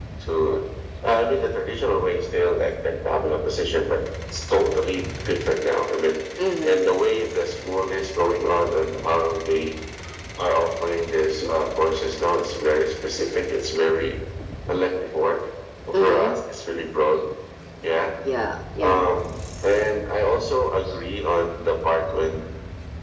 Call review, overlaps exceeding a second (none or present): none